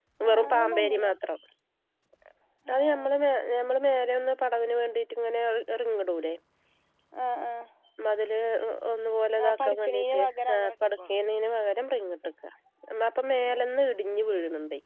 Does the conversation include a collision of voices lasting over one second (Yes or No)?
Yes